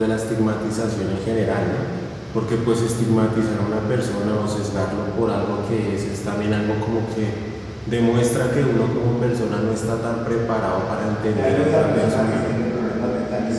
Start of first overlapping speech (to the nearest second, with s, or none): 11 s